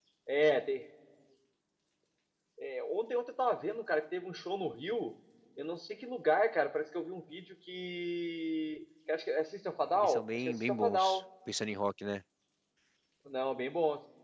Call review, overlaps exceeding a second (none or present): present